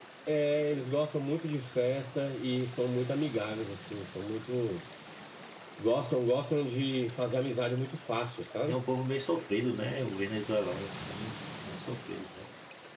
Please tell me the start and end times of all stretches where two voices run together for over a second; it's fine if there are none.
none

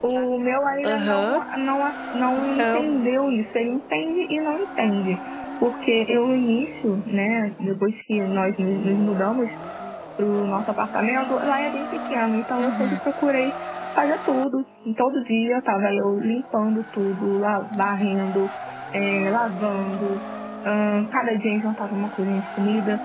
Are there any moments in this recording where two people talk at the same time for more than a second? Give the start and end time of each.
none

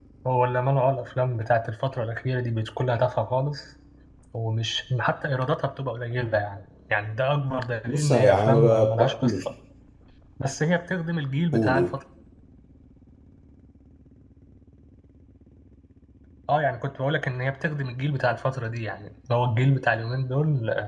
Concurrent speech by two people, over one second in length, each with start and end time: 7.9-9.5

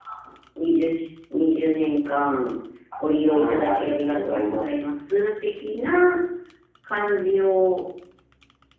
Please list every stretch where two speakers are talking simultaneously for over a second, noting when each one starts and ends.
3.4-4.7

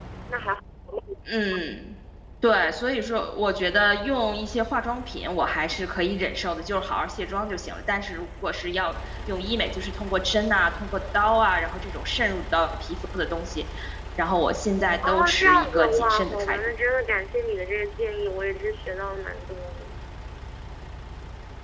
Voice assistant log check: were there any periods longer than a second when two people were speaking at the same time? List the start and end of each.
15.1-16.6

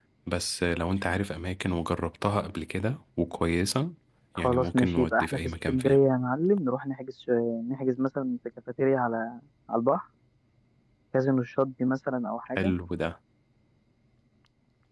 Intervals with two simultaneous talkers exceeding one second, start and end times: 4.4-6.0

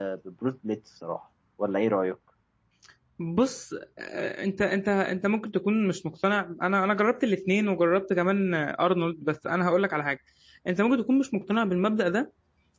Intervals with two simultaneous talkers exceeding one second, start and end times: none

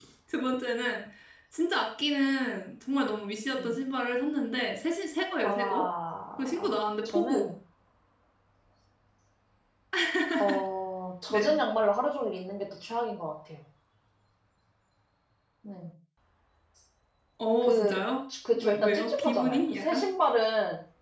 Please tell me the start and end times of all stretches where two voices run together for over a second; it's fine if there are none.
18.6-20.1

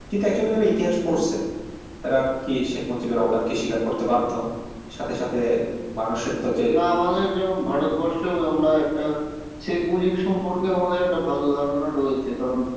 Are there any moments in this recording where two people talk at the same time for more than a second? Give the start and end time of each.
none

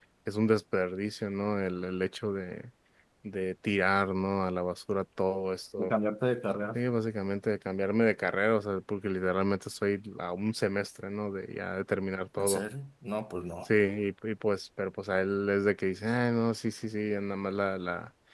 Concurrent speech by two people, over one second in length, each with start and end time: none

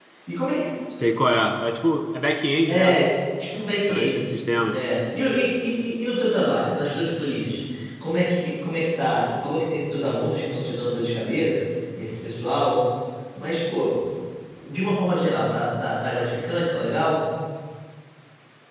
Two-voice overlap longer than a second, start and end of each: none

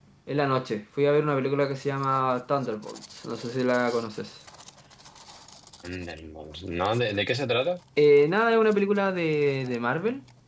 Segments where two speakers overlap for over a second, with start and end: none

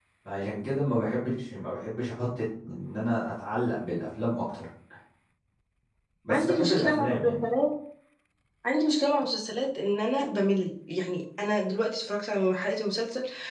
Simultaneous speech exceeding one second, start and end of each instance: 6.3-7.5

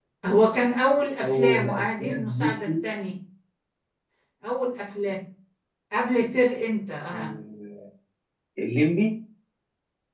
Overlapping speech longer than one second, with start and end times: 1.2-2.7

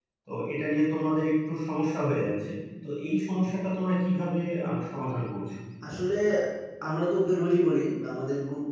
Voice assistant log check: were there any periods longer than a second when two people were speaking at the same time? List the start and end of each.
none

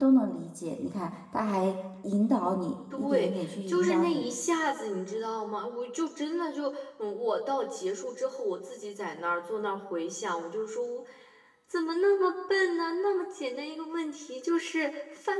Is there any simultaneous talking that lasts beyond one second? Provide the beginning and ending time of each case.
2.9-4.2

